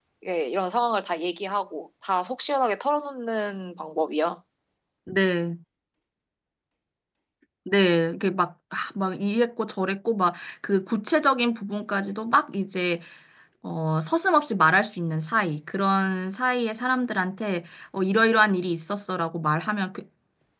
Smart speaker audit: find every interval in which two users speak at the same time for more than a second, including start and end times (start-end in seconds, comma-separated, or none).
none